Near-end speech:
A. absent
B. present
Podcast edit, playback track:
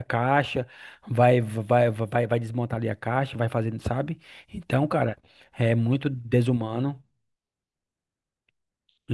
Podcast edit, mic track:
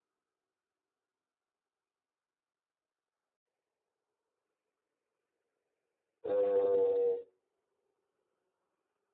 B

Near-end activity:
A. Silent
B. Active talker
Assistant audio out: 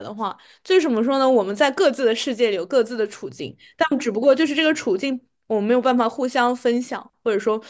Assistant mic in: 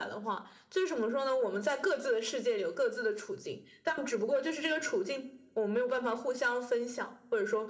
A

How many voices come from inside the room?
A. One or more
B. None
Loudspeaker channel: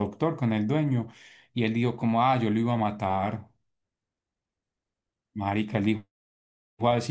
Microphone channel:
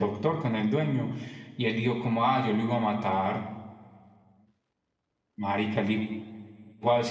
B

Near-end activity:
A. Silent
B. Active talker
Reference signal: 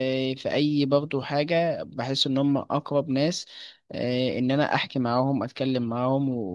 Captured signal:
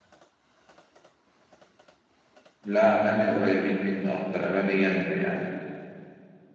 B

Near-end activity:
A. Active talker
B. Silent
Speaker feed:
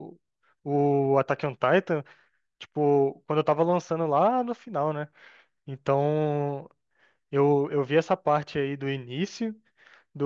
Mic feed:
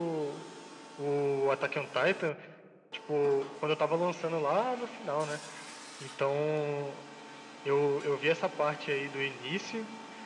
B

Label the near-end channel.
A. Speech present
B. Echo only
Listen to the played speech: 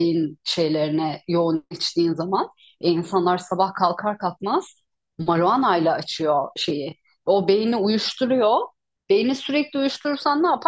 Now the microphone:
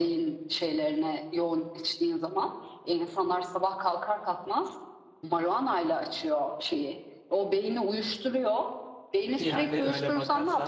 A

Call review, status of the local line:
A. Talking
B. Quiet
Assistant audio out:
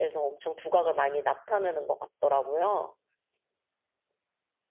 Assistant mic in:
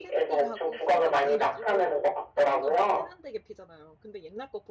A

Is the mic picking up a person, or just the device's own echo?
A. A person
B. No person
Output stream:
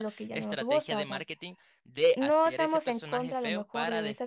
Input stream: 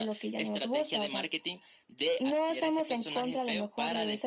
B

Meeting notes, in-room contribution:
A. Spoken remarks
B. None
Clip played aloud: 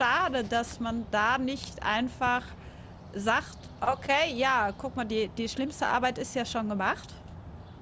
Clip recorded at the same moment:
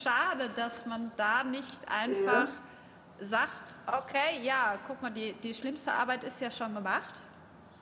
A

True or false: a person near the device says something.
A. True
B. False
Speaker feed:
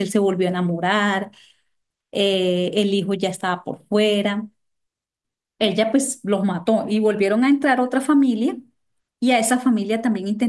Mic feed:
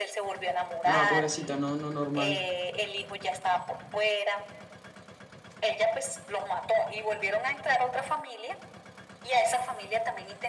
A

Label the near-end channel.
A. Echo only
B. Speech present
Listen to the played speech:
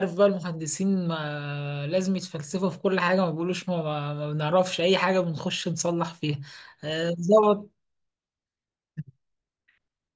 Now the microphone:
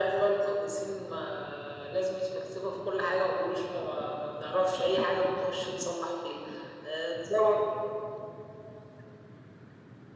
A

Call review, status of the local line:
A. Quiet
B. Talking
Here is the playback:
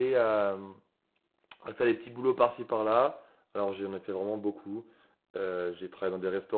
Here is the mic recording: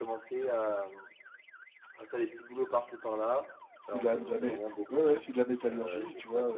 B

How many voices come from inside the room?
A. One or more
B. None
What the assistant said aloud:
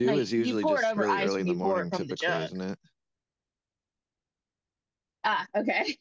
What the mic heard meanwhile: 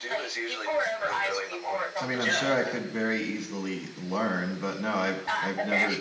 A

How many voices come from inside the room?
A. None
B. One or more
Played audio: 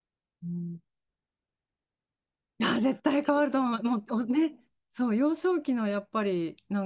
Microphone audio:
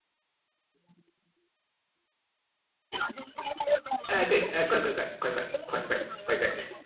B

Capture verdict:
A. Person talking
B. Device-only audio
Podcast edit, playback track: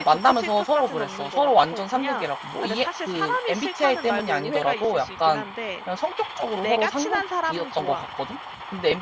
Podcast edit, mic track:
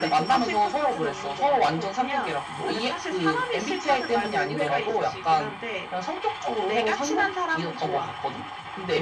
B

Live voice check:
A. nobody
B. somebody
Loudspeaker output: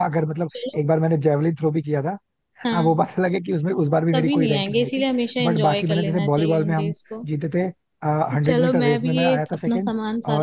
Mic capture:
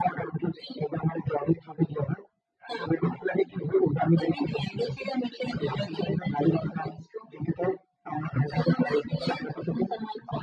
A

